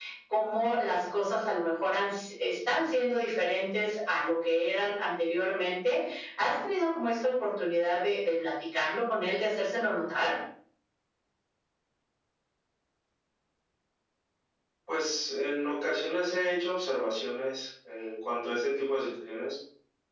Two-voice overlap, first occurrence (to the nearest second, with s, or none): none